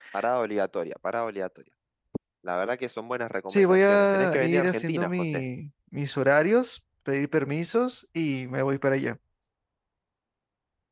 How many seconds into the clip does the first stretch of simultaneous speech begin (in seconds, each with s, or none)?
3.5 s